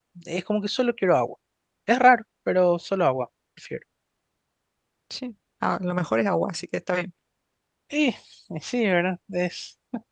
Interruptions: none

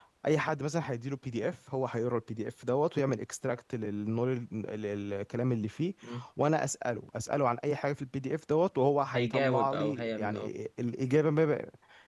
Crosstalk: present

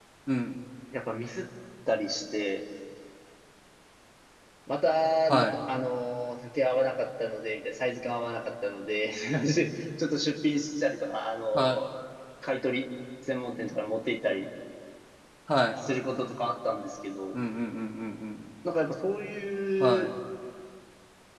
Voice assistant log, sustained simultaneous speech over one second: none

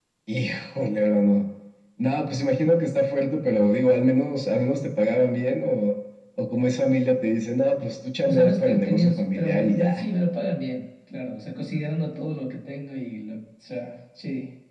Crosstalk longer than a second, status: present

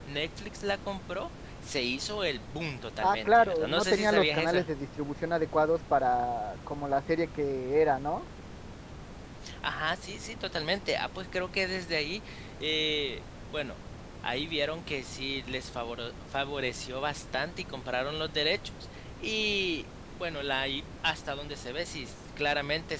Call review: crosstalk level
present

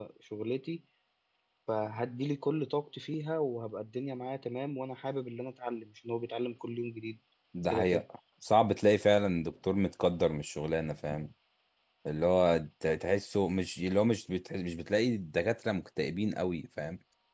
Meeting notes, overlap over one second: none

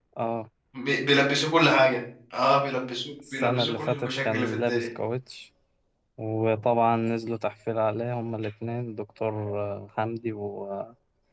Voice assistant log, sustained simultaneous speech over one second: present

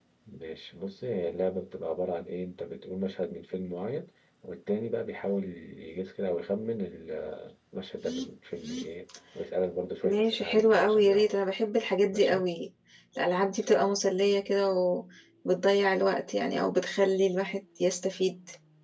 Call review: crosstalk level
present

